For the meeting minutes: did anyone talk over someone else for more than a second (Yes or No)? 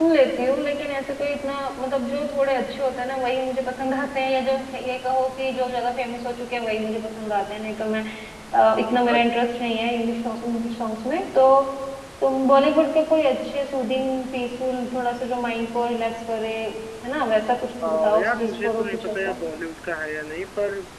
Yes